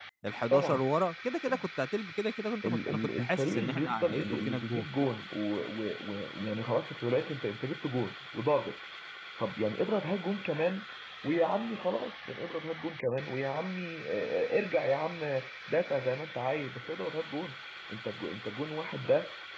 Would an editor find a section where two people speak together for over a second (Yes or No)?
Yes